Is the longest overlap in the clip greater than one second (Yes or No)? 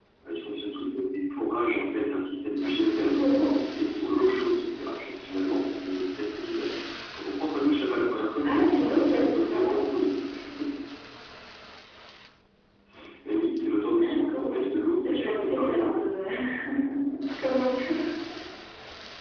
Yes